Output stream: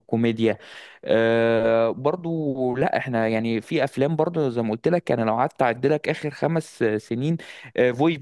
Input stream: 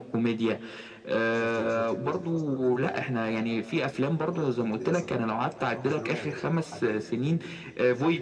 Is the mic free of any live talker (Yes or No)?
No